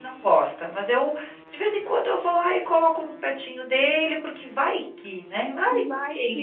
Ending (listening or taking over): taking over